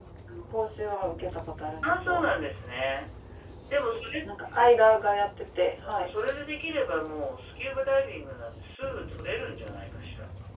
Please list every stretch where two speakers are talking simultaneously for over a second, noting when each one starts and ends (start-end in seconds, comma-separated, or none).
none